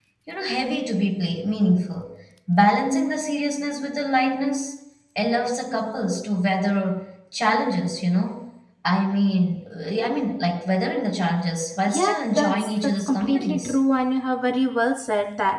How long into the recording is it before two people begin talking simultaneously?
11.9 s

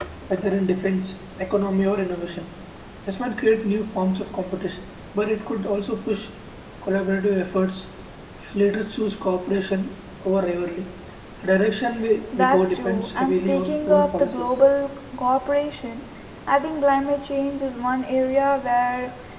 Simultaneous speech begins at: 12.3 s

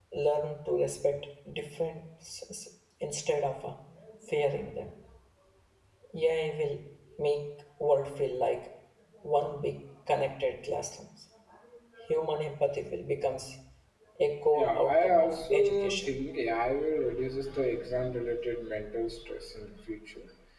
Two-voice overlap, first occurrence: 14.5 s

